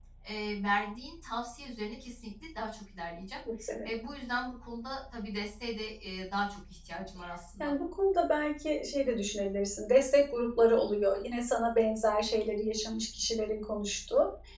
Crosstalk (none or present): none